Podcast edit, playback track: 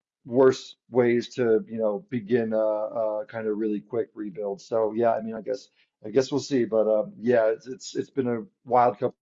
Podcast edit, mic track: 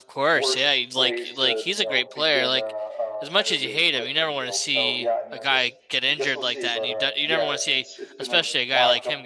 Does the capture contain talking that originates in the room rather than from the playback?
Yes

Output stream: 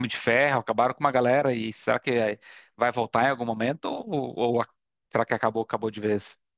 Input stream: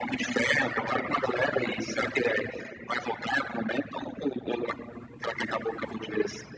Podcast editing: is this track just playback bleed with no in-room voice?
Yes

